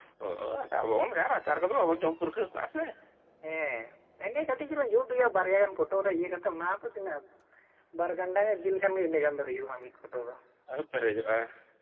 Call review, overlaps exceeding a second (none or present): none